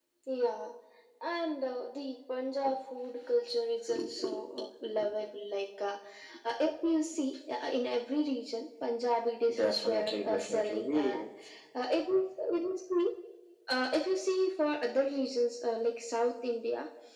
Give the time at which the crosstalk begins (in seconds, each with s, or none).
9.5 s